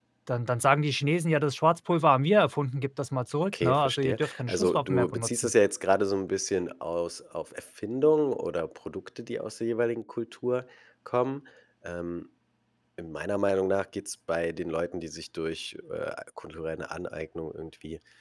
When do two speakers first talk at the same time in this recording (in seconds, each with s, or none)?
3.5 s